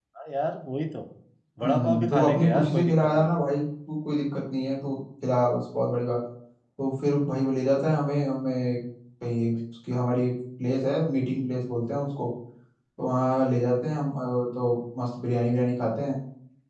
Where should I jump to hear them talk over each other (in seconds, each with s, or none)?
1.6 s